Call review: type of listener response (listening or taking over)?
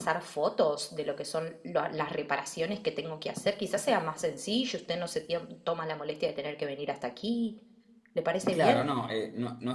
taking over